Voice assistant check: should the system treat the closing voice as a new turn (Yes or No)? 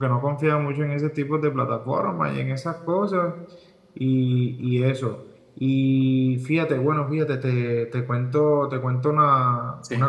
No